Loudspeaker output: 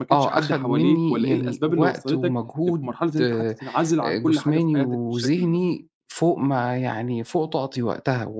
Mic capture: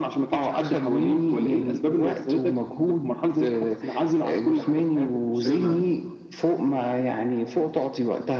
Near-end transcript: تبعد آه،

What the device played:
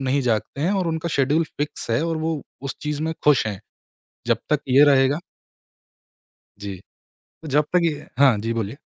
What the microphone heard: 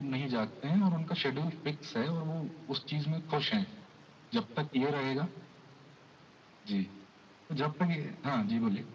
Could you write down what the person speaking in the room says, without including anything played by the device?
none

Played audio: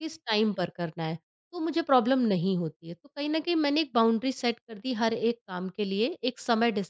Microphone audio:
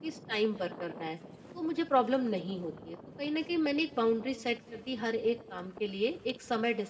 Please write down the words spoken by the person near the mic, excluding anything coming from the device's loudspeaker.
none

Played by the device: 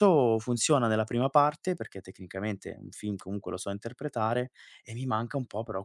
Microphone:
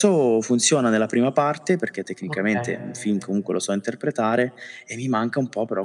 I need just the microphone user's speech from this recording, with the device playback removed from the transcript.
okay.

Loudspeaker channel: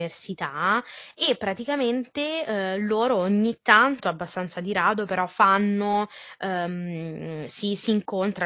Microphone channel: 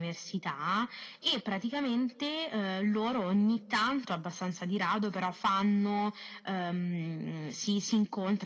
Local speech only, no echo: none

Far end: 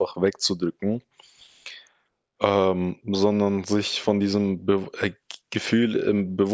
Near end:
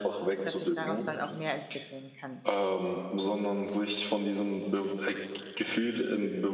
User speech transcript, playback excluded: dass sich daraus dann auch mehr entwickeln kann.

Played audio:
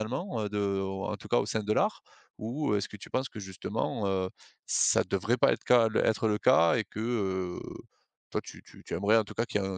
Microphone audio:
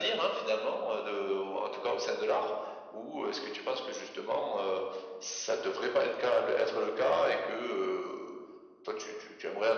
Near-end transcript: none

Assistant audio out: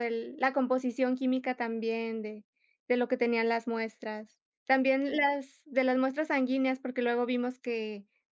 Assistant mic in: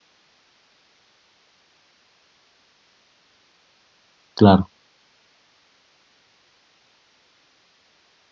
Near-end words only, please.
claro,

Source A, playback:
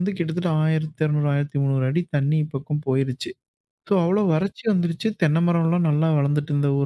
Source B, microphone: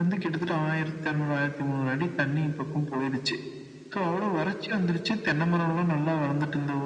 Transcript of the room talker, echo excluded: none

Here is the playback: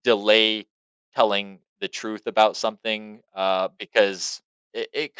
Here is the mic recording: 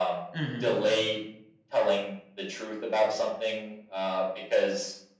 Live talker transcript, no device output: Mhm.

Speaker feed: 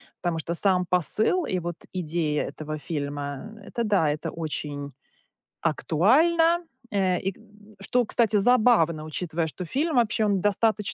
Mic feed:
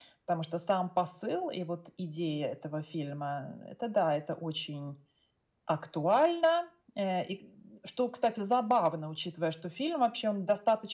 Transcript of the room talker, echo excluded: none

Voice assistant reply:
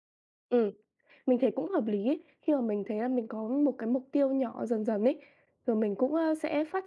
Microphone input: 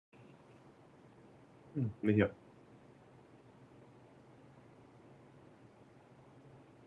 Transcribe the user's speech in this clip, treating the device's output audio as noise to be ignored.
Ừm, mình hiểu,

